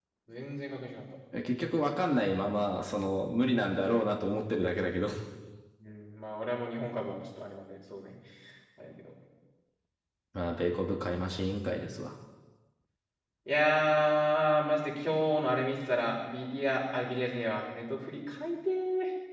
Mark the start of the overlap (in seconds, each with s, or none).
none